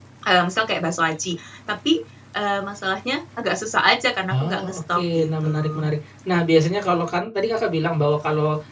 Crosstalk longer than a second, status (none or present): present